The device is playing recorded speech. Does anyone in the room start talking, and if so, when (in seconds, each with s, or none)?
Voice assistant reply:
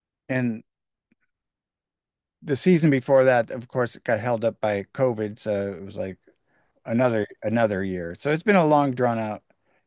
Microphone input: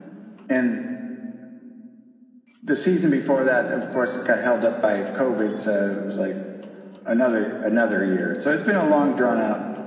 none